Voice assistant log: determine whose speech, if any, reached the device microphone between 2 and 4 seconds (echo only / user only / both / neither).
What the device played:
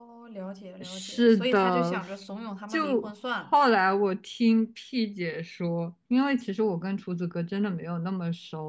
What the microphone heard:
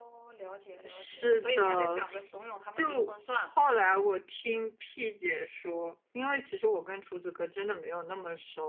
echo only